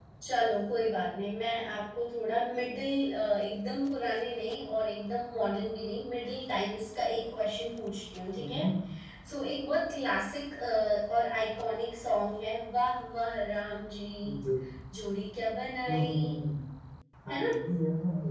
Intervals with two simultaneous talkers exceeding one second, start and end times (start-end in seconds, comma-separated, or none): none